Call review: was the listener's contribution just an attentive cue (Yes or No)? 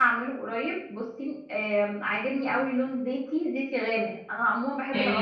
No